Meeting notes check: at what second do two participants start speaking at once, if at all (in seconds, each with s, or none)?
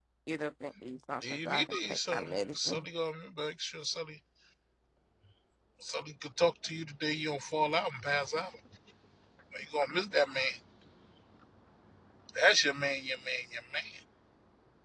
1.3 s